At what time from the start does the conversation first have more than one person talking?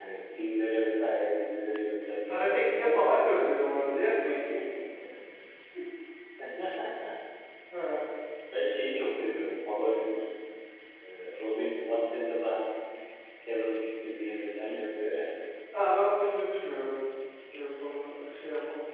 2.3 s

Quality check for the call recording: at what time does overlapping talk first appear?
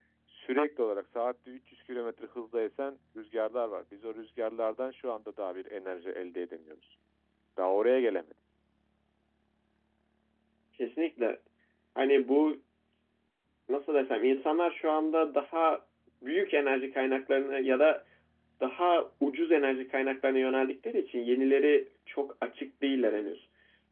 none

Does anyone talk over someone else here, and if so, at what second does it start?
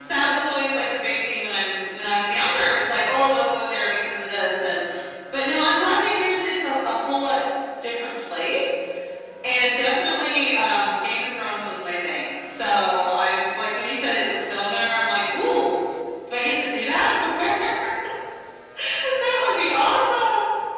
none

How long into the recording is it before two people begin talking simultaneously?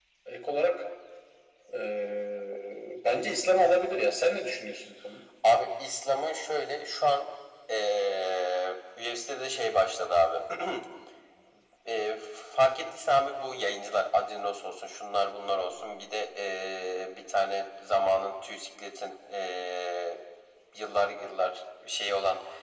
none

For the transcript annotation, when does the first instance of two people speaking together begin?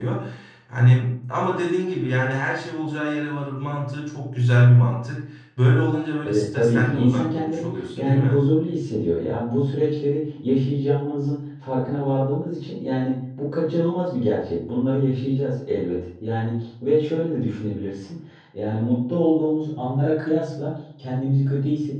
6.2 s

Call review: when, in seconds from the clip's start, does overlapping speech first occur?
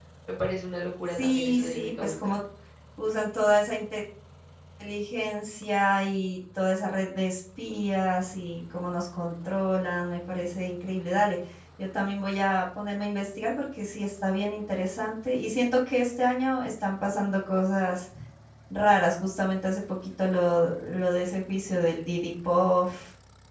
1.1 s

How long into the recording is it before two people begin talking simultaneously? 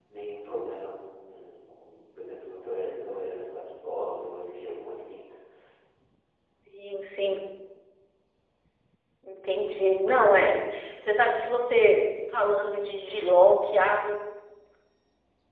none

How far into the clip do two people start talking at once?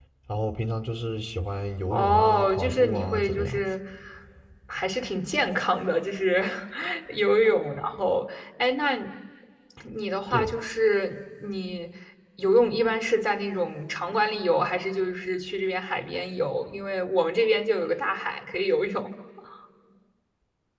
1.9 s

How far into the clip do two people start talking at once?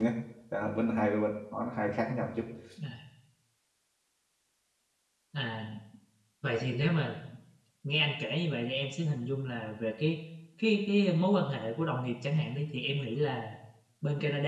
none

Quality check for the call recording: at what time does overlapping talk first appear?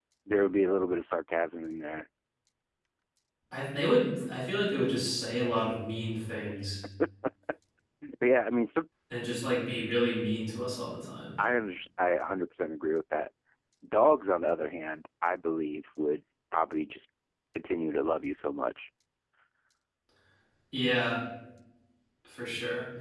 none

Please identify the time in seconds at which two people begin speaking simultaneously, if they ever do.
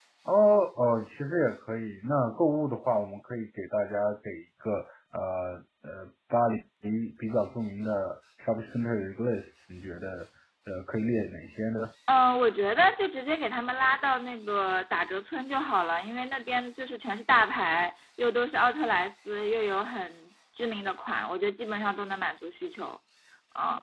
none

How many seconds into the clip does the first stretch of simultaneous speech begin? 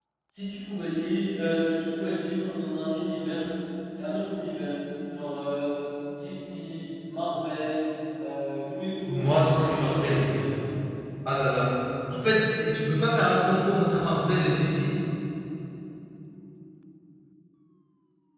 9.1 s

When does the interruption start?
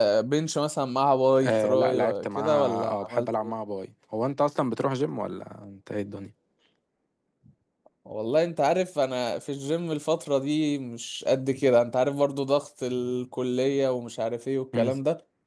1.4 s

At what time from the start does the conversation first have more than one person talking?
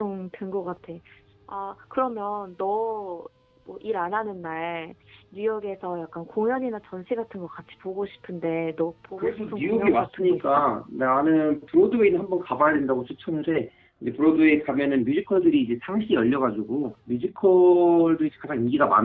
9.2 s

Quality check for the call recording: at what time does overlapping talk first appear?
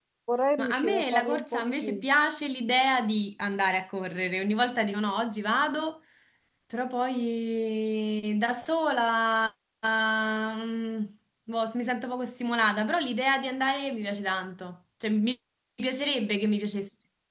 0.6 s

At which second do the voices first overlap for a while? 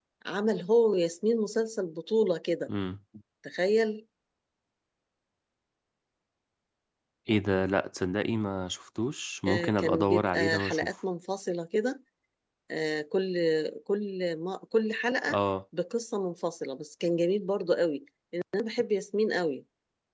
9.5 s

